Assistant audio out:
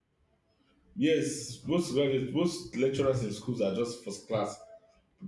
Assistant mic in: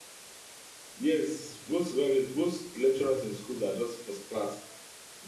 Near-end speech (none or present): none